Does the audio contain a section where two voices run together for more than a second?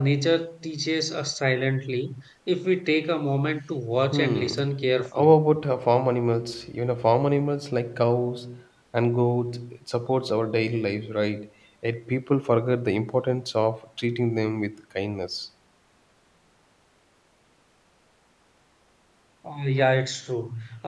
No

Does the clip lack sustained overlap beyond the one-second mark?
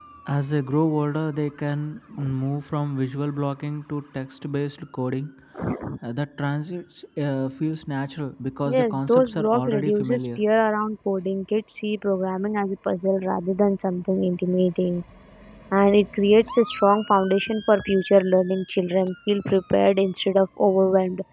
No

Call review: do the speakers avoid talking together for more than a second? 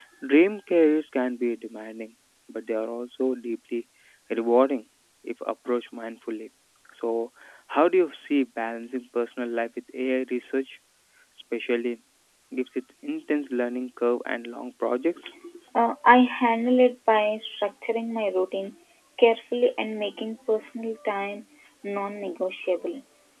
Yes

